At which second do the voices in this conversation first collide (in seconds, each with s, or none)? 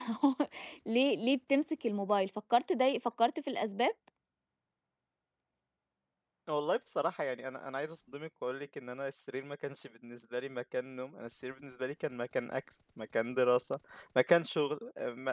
none